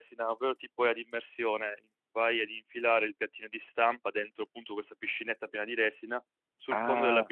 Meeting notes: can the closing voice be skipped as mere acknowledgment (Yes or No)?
Yes